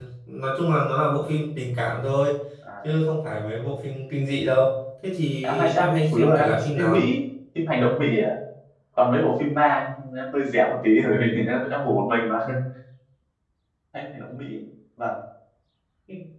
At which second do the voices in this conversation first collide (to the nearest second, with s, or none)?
5 s